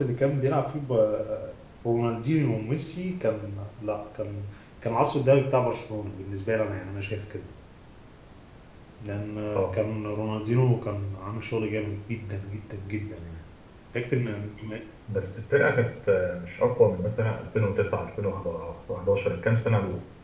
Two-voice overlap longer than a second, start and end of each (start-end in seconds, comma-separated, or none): none